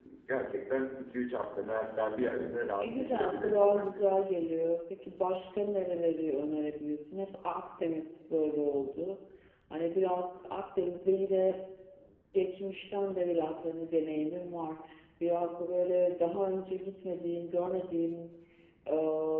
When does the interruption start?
2.8 s

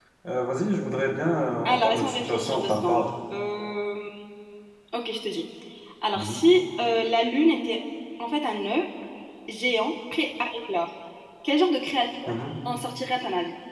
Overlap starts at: 1.6 s

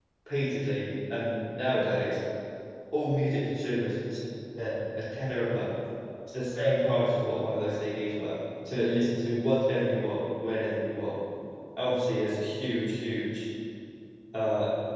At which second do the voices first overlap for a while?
none

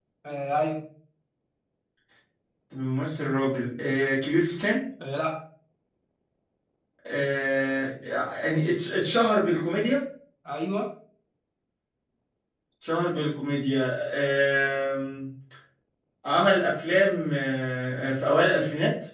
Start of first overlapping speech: none

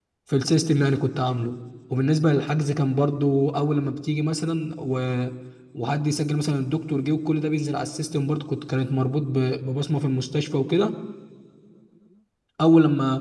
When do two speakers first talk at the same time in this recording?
none

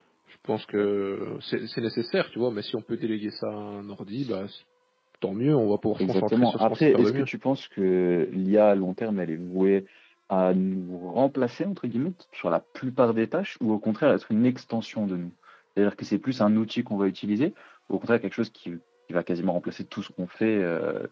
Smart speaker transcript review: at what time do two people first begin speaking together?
6.0 s

